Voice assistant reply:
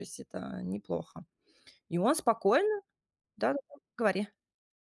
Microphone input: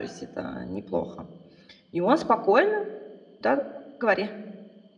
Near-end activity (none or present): none